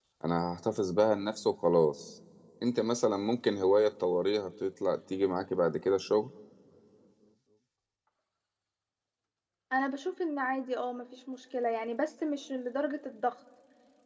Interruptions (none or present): none